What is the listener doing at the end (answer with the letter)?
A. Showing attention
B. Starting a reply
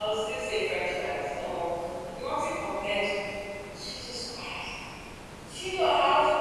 A